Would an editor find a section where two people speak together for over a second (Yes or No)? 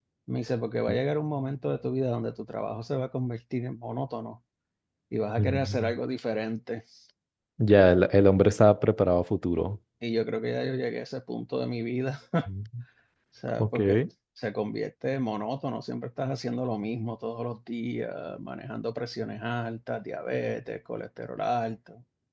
No